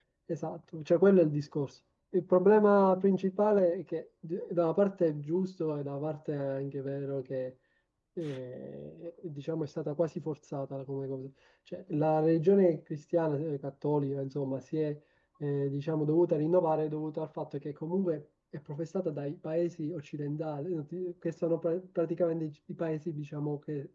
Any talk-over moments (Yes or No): No